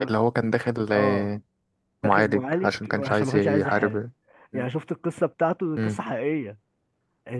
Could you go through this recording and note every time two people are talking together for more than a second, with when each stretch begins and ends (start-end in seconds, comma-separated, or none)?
2.0-4.0